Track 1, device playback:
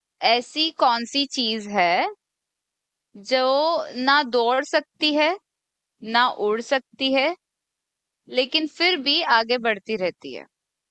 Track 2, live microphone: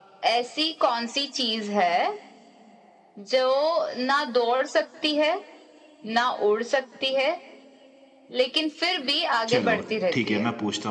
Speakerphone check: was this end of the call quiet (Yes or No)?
No